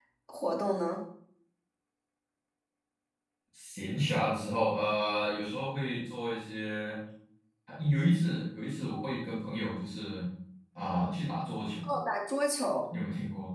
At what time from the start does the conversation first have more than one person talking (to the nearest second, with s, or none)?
none